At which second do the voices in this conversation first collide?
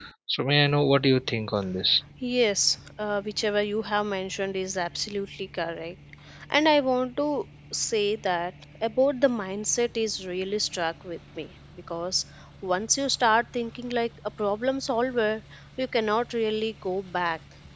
none

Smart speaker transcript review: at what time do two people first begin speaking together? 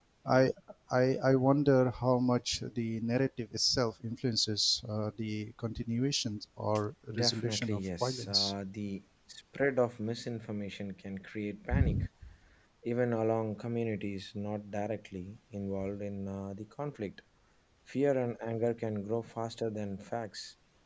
7 s

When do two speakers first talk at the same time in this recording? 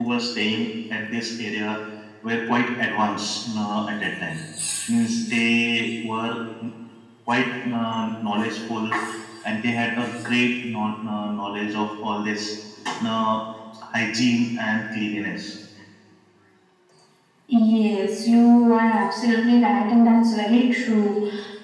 none

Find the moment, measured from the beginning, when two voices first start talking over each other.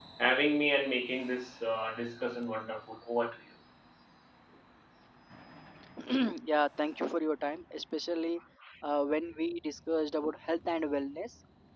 none

